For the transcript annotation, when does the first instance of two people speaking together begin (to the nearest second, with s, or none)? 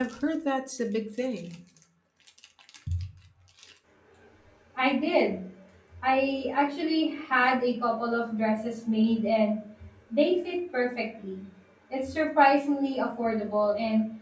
none